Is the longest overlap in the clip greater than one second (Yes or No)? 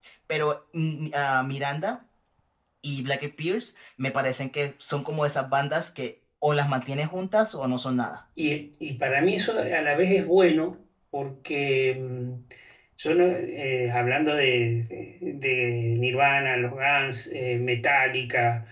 No